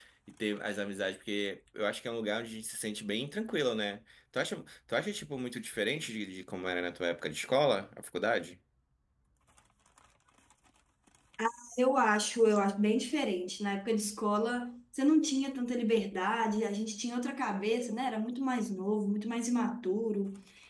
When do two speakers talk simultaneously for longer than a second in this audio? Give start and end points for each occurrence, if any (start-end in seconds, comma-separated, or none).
none